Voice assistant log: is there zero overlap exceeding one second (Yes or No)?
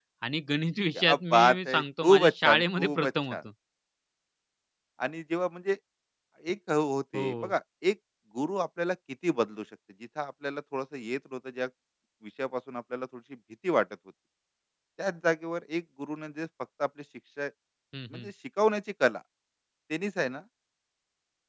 No